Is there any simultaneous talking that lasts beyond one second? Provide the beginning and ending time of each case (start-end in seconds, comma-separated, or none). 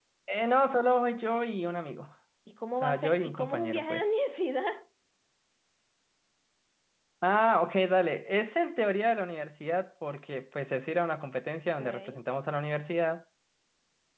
2.8-4.0